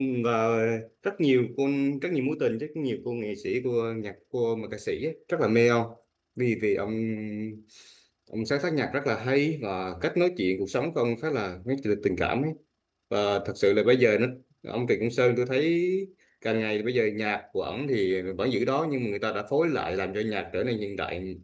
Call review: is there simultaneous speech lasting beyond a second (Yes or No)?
No